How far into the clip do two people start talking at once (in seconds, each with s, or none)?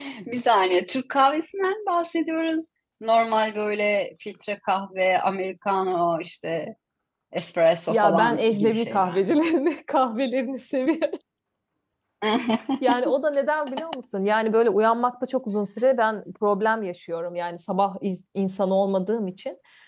7.9 s